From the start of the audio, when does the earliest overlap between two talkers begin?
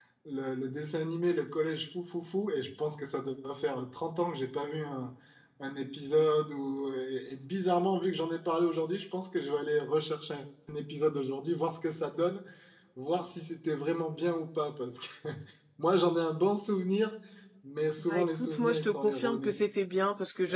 18 s

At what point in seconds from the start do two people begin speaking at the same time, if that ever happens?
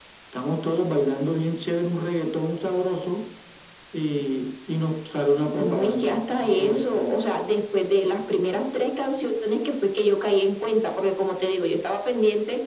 6 s

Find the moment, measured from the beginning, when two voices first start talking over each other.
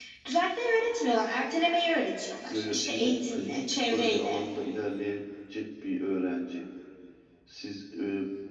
2 s

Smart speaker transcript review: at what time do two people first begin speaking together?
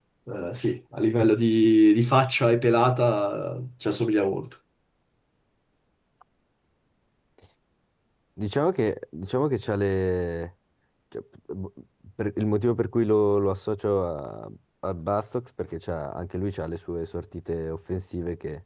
none

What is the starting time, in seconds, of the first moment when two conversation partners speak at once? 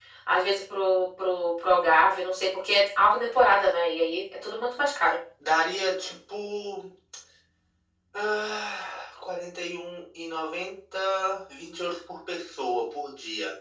none

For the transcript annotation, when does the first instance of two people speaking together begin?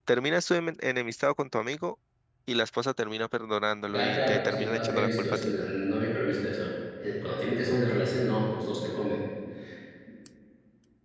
4 s

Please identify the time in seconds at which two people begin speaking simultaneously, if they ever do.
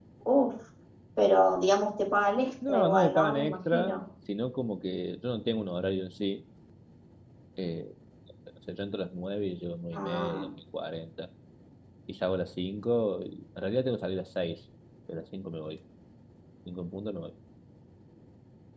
3 s

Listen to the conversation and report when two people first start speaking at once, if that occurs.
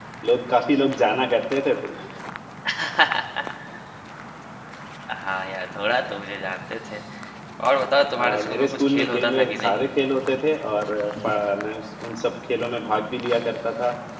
8 s

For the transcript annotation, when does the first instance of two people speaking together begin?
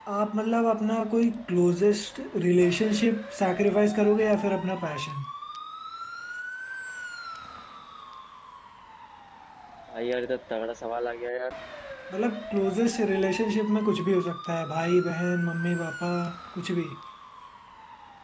none

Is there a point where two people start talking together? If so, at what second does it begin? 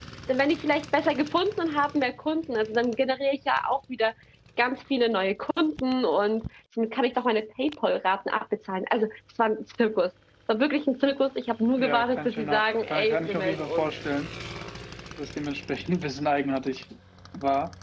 12 s

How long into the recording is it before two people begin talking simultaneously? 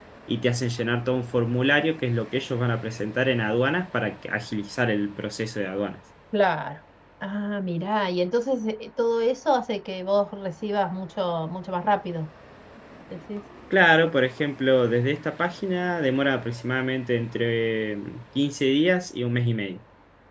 none

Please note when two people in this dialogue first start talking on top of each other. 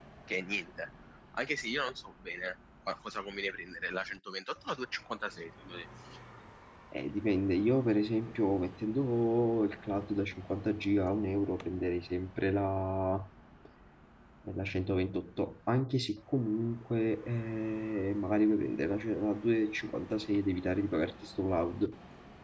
none

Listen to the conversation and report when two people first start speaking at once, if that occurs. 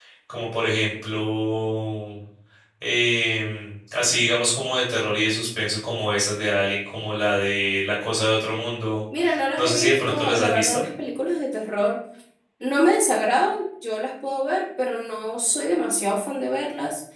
10 s

